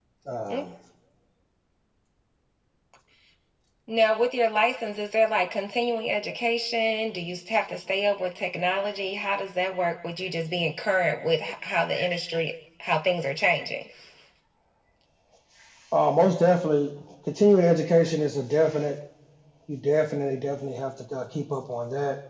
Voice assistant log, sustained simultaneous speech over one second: none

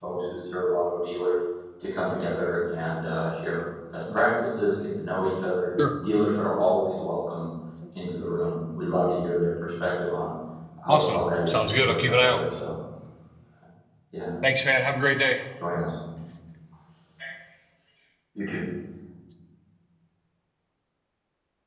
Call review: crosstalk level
present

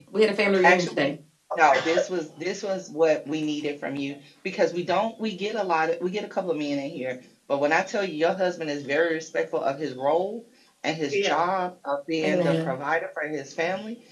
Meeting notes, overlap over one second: none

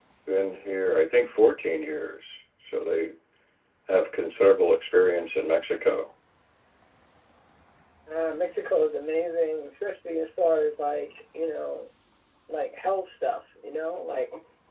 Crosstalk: none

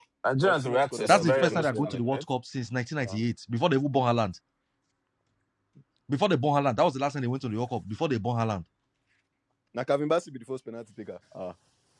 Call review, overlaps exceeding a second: present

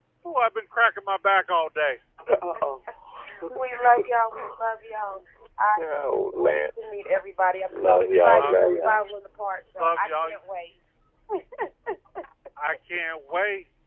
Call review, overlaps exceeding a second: present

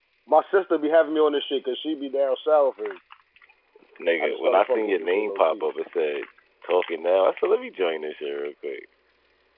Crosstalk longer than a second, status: present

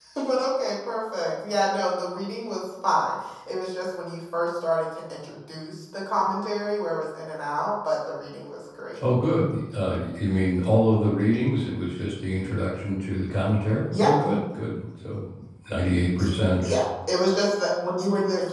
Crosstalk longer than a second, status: none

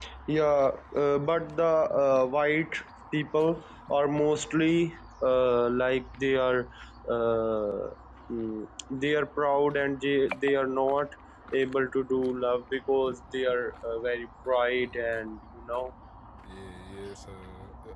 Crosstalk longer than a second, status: none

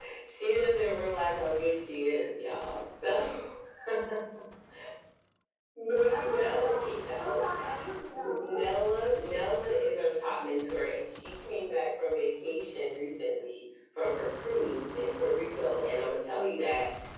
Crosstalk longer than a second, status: present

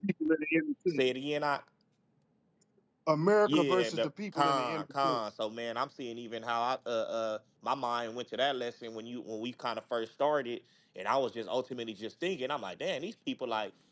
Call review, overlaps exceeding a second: present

